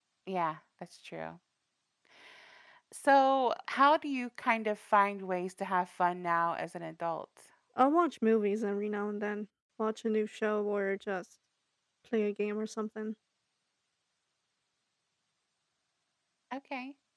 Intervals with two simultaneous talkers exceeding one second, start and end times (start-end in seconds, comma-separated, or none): none